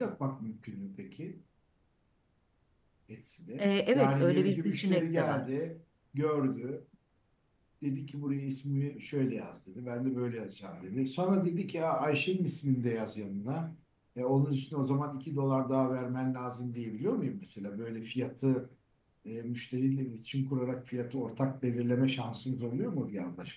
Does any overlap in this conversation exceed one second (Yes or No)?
Yes